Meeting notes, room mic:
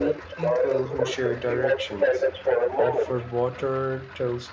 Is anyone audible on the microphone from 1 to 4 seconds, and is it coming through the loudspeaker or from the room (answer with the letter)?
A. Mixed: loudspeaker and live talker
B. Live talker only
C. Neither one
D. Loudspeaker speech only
A